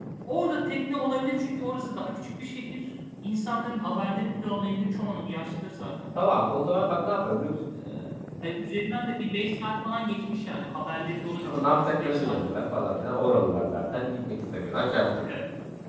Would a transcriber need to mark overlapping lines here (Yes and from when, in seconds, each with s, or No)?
Yes, from 11.4 s